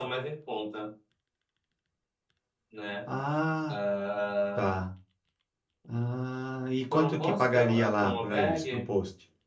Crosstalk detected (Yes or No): Yes